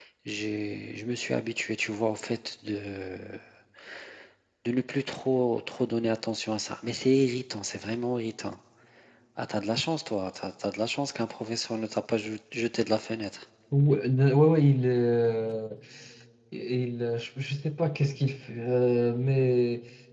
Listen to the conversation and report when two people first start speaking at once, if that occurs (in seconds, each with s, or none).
none